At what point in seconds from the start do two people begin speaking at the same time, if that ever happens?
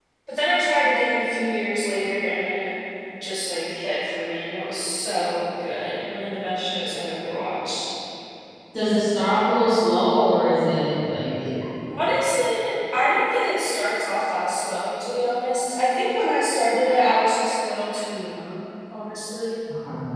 none

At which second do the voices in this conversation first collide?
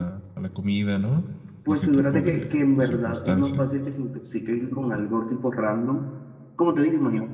1.7 s

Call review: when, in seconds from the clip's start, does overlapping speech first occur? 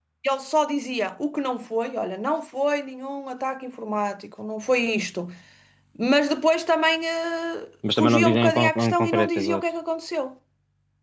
7.8 s

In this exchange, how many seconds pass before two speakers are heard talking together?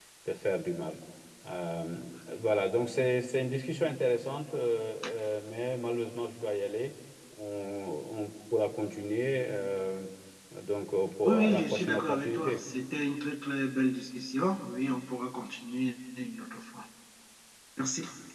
11.2 s

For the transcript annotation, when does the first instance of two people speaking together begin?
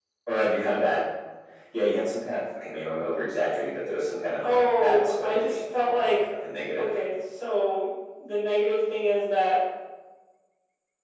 4.4 s

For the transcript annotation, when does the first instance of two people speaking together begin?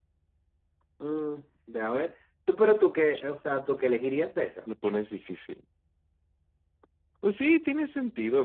none

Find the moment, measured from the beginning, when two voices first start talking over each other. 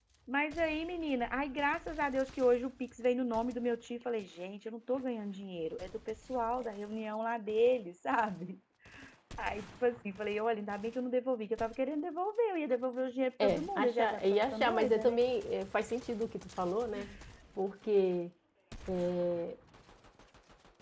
13.4 s

